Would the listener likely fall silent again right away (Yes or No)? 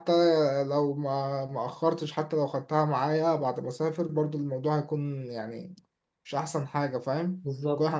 No